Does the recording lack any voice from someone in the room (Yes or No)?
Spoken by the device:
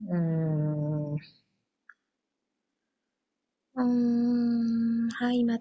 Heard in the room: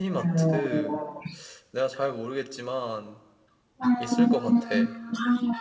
No